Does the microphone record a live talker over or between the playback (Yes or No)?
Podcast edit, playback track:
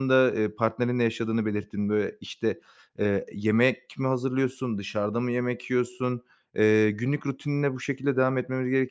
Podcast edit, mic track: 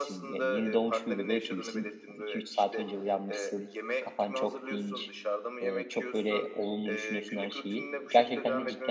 Yes